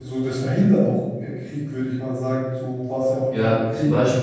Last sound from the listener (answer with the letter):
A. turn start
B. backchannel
A